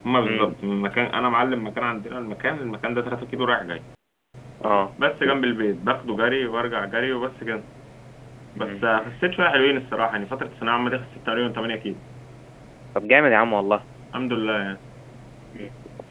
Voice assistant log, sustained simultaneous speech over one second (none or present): none